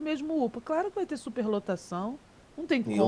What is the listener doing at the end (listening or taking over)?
taking over